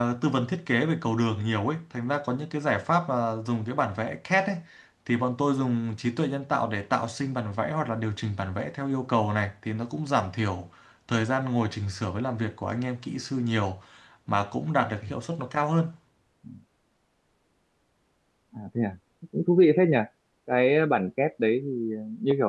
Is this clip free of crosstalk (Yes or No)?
Yes